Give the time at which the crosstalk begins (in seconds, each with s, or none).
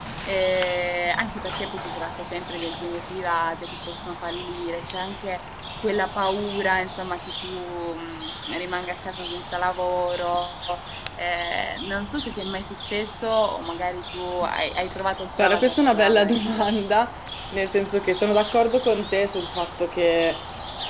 15.4 s